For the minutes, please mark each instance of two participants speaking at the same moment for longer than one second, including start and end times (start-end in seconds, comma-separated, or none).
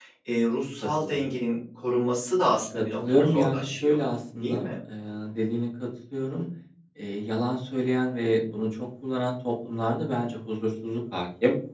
2.7-4.0